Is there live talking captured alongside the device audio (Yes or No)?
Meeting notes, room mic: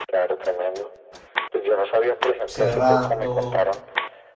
Yes